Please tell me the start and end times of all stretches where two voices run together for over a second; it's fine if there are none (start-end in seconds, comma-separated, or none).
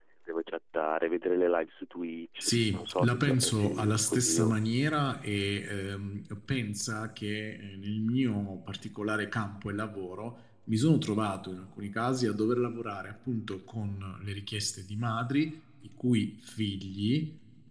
2.4-4.6